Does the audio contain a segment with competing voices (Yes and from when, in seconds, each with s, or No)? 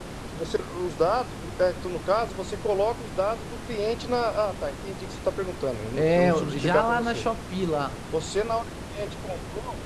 Yes, from 6.0 s